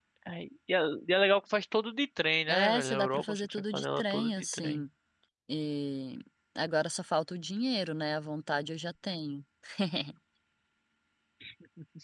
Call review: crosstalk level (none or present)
present